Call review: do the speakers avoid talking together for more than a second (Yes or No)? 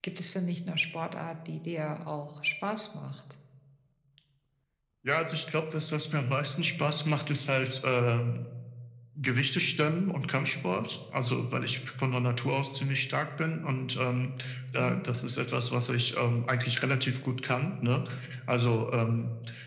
Yes